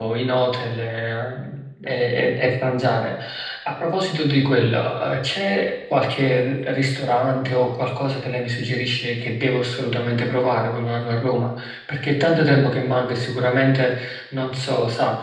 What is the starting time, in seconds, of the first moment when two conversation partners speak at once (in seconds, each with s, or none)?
none